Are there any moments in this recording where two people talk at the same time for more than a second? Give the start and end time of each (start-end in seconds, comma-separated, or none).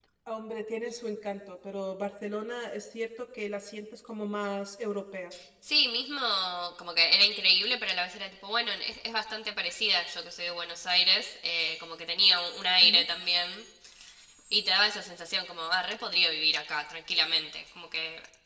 none